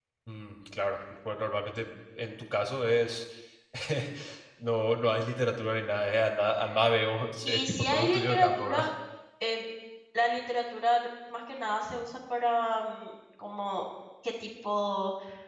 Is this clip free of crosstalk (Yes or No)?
No